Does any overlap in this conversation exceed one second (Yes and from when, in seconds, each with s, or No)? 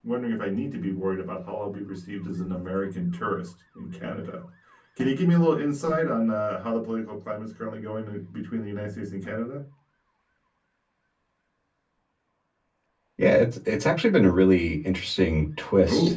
No